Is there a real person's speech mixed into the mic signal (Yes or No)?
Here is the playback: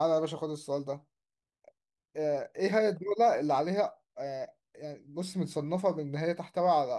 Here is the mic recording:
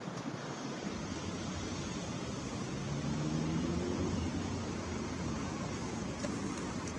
No